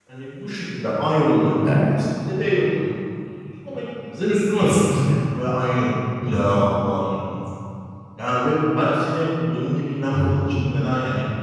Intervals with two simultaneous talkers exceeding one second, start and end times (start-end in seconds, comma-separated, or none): none